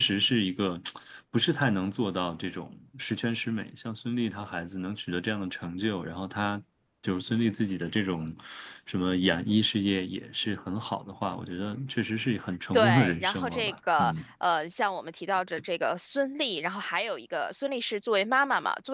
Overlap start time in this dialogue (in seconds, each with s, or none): 12.7 s